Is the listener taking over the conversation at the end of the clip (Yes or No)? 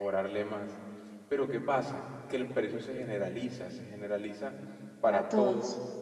No